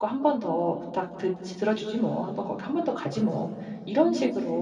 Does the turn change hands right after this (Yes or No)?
No